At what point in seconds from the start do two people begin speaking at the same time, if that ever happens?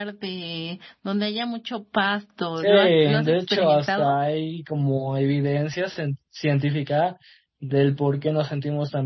2.6 s

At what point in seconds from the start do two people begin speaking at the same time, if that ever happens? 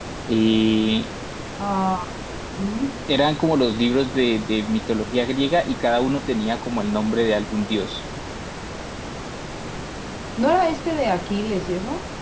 none

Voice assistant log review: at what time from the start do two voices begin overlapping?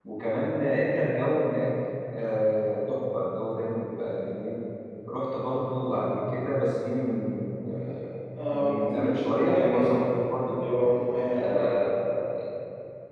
8.5 s

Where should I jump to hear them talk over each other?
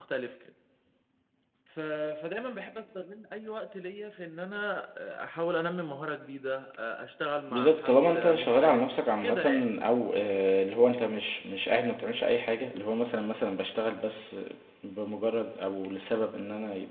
7.5 s

